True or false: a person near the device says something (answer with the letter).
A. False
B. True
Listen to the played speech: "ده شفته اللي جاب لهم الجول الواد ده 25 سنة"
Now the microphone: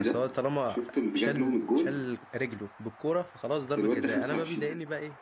B